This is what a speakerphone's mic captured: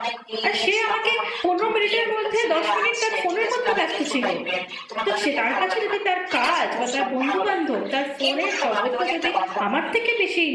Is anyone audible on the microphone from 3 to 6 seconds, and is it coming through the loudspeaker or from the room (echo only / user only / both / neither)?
both